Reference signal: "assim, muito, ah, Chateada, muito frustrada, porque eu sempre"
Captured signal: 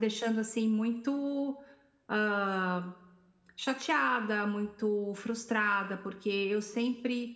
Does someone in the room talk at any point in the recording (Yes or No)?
No